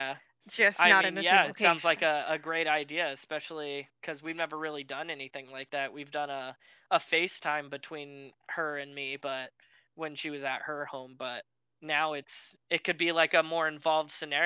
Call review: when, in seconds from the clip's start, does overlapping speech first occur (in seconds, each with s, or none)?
0.8 s